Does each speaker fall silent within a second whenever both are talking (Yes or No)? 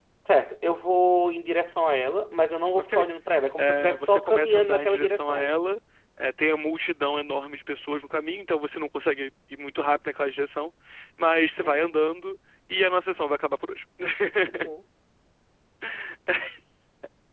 No